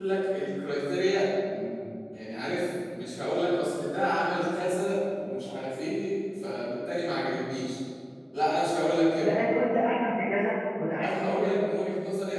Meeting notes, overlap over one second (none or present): none